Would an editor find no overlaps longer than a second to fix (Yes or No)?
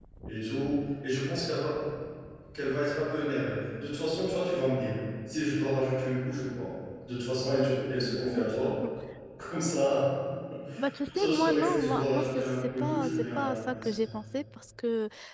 No